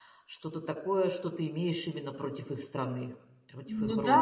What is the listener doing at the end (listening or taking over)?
taking over